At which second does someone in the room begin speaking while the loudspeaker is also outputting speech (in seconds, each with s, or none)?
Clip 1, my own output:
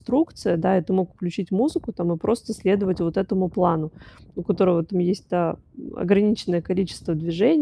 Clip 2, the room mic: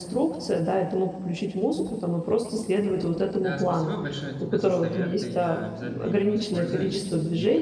3.4 s